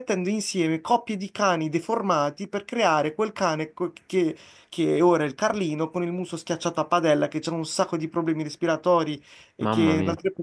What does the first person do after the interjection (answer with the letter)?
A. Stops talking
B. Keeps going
B